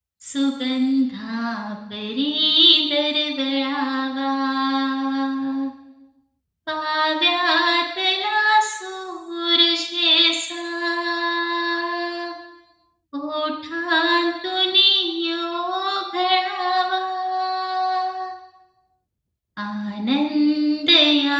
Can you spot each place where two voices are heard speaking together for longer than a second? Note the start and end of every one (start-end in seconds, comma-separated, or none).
none